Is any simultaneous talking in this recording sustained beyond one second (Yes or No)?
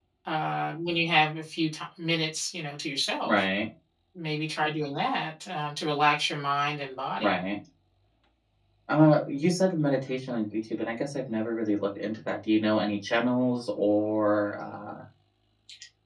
No